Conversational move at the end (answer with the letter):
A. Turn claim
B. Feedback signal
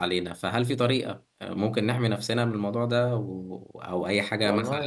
A